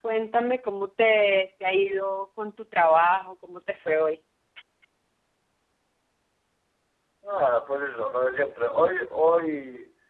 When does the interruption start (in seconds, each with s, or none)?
none